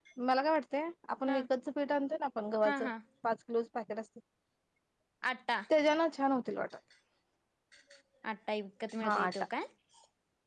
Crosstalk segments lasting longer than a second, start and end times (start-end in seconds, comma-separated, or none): none